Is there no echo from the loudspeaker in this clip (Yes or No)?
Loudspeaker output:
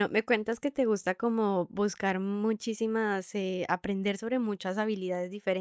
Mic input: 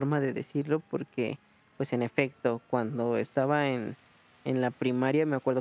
Yes